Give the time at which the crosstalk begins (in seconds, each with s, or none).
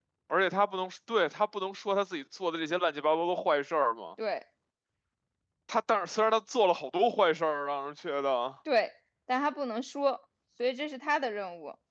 none